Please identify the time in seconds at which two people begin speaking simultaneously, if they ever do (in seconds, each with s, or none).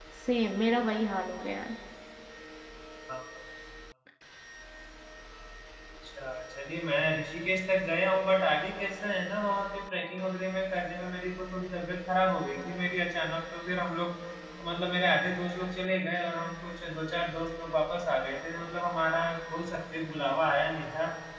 none